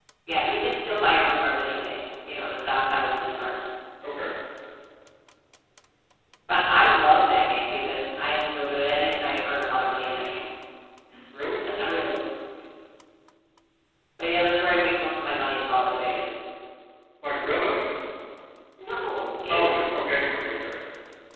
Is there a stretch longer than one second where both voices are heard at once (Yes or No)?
No